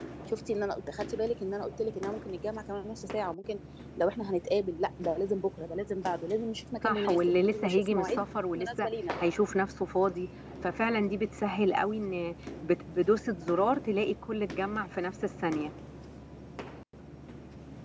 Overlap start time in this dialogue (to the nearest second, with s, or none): 7 s